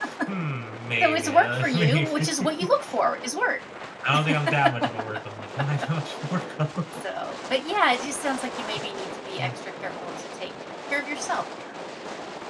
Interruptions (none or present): present